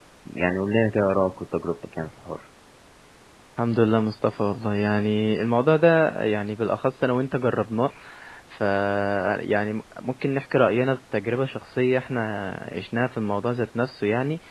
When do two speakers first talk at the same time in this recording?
none

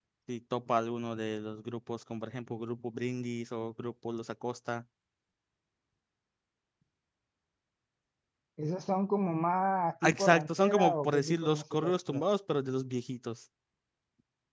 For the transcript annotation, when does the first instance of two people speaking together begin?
10.0 s

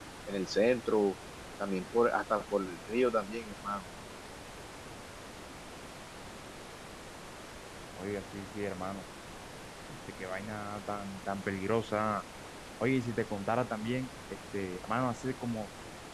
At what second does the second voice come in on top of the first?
none

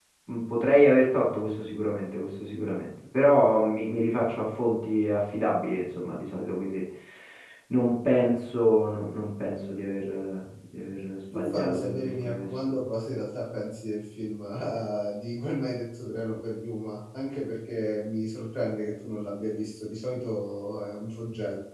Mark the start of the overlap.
11.3 s

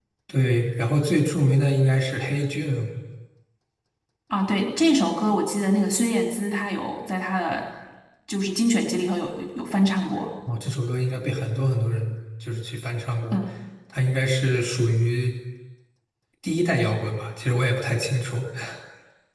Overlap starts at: none

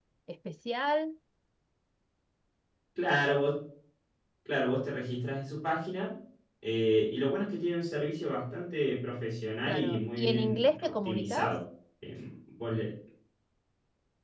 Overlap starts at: 9.6 s

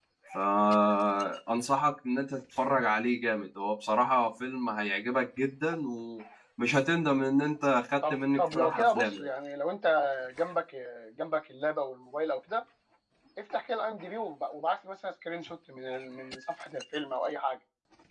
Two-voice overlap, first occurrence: 8.0 s

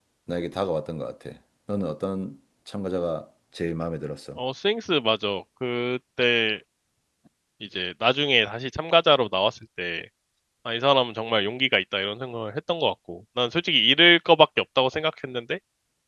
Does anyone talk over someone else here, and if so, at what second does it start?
none

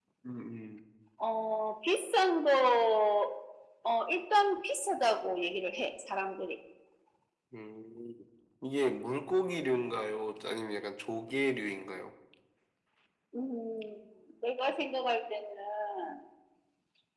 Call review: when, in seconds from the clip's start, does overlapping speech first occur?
none

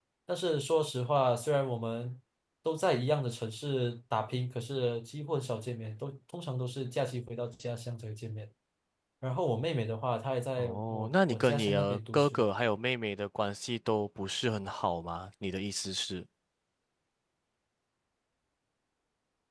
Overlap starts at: 10.6 s

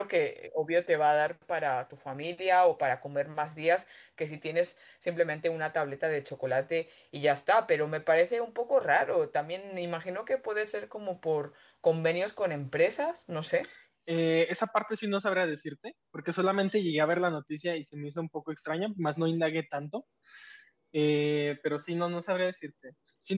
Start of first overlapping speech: none

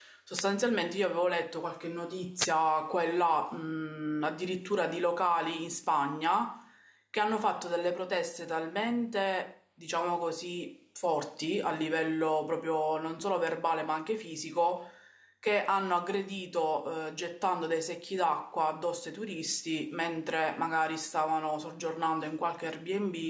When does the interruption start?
none

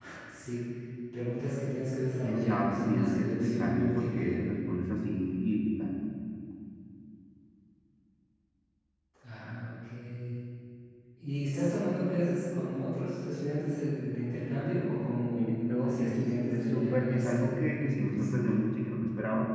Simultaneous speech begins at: 2.2 s

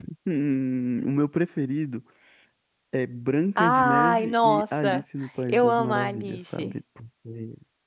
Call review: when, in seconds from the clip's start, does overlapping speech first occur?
3.6 s

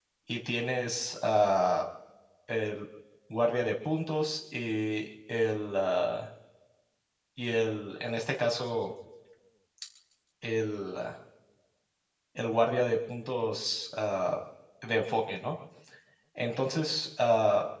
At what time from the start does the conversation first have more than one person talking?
none

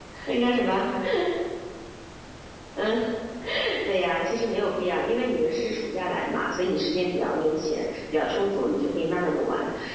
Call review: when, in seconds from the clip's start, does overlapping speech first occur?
none

